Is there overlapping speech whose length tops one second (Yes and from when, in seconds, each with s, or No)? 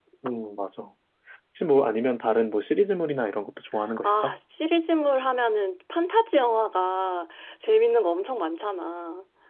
No